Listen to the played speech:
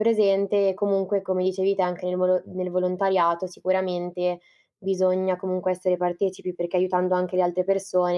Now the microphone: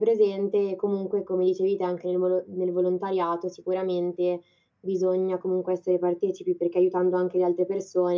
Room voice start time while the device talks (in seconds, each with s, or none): none